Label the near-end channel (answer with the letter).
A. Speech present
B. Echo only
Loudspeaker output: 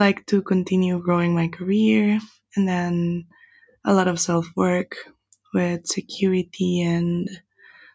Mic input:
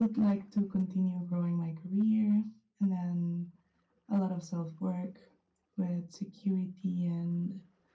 B